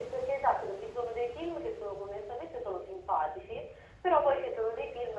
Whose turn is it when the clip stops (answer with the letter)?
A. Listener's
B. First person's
B